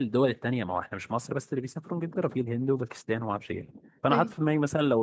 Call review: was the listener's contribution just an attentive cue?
Yes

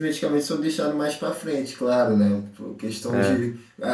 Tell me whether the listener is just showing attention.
Yes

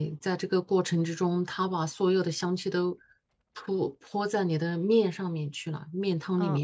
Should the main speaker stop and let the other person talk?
Yes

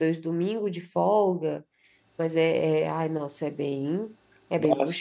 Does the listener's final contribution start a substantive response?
Yes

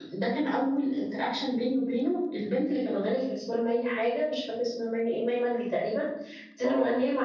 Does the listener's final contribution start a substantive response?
No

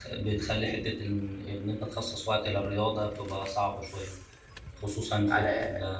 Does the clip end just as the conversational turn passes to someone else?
No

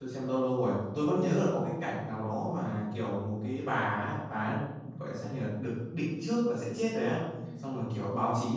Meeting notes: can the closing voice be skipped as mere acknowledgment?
Yes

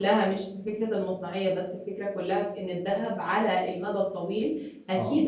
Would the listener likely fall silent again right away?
Yes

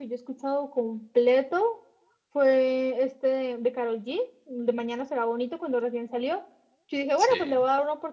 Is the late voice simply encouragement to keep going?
Yes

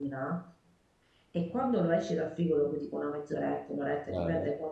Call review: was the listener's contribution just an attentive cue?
Yes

